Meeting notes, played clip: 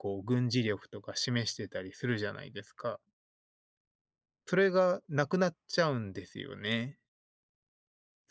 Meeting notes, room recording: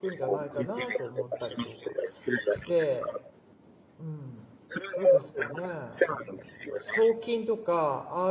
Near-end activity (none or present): present